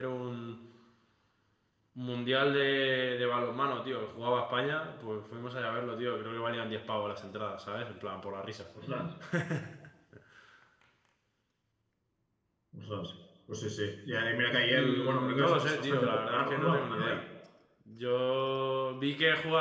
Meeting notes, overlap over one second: present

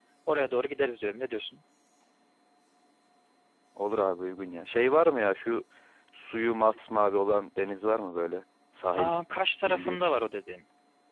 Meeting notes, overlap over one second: none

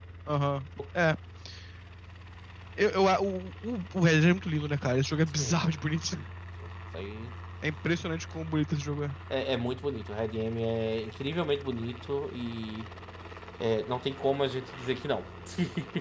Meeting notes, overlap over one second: none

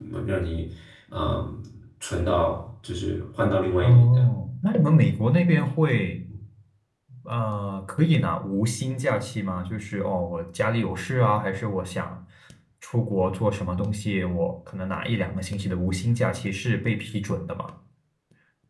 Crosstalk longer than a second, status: none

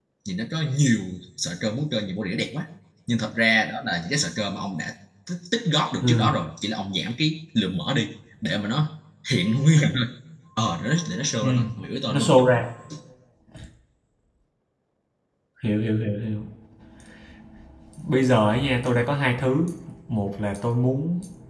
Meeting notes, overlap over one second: none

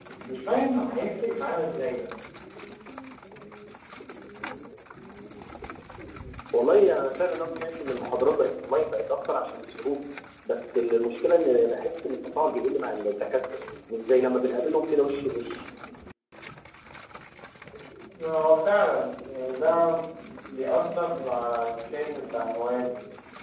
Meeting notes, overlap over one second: none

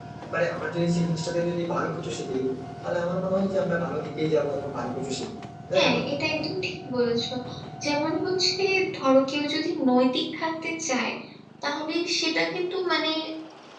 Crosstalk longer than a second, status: none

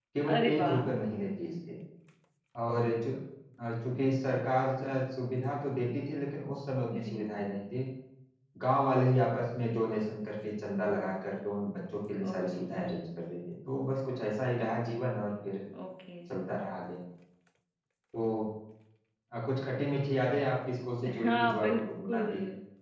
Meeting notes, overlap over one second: present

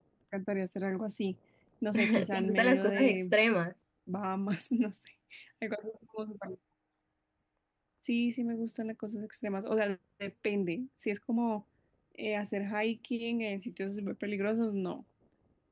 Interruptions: present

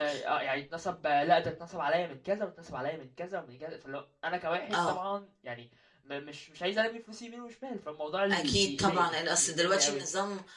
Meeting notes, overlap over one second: present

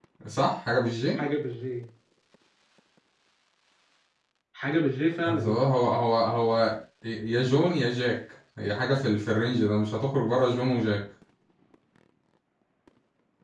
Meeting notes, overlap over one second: none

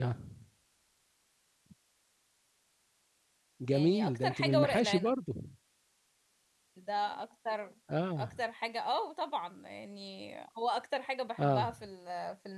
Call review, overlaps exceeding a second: present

